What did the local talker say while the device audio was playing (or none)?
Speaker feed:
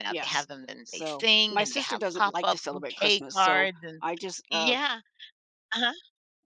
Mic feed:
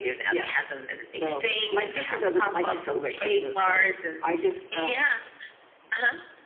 none